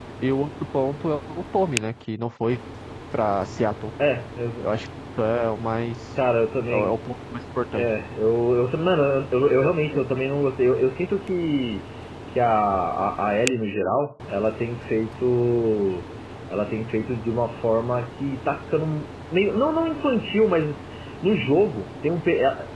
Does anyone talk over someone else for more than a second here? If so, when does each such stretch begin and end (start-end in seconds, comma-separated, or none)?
none